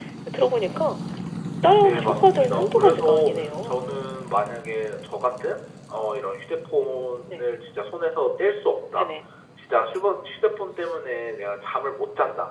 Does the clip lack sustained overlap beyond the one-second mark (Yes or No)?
No